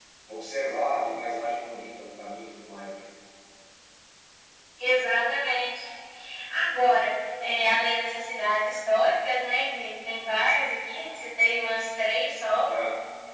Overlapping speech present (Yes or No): No